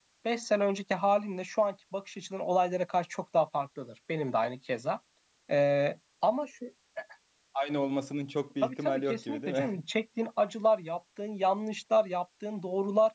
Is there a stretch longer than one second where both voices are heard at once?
Yes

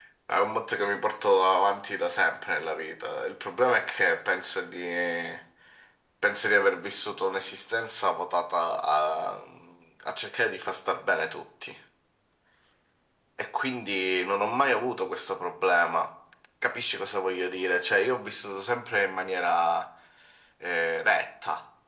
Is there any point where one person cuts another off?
No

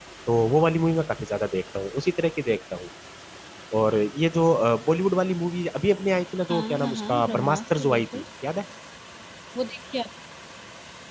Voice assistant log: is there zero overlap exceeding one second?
No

